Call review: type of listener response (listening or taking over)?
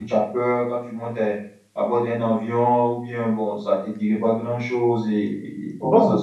taking over